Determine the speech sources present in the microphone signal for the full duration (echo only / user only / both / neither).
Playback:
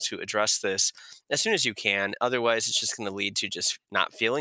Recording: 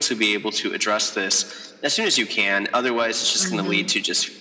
both